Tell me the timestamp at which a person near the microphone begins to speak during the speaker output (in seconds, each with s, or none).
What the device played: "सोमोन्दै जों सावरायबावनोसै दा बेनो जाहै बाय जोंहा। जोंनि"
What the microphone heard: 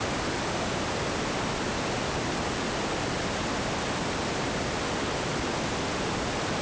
none